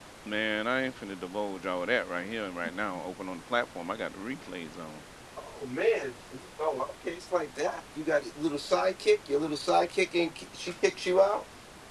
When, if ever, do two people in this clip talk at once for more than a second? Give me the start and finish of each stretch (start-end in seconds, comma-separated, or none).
none